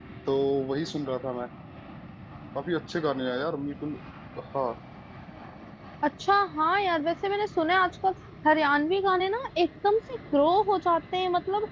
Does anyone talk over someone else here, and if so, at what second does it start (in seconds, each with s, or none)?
none